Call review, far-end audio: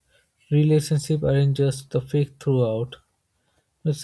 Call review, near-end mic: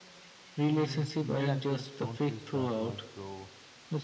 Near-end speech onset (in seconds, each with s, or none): 0.6 s